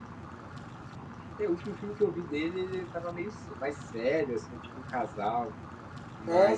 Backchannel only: Yes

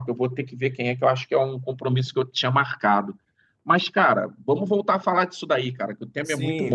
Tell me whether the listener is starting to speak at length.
Yes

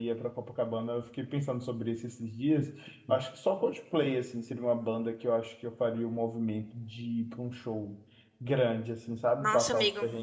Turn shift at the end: Yes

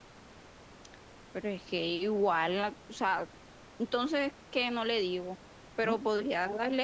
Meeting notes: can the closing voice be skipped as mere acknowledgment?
Yes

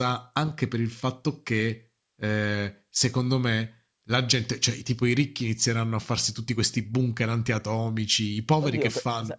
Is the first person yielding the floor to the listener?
Yes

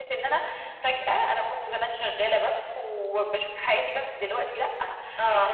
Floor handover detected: No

